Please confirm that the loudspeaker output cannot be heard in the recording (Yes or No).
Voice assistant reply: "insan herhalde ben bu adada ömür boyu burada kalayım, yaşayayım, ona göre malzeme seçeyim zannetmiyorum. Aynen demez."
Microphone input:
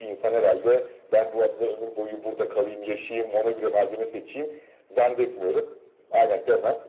No